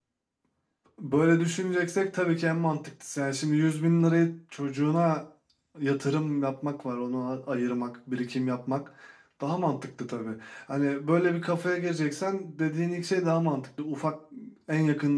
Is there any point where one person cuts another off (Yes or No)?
No